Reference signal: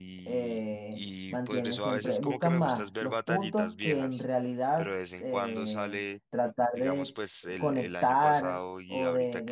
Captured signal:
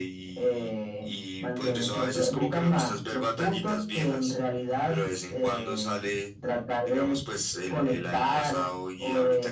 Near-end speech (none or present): none